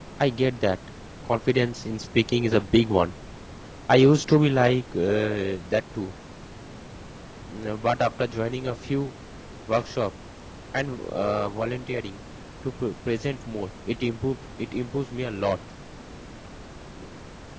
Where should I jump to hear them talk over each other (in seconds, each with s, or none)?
none